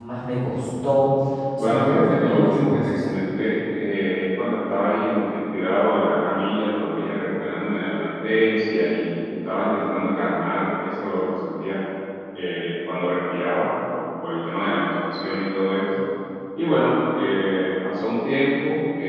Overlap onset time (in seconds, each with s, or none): 1.6 s